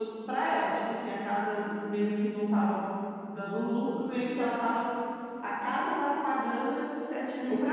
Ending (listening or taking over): taking over